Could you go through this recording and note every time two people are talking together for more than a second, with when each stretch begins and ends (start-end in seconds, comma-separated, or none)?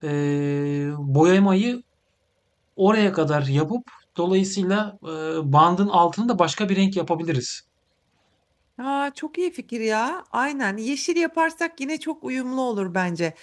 none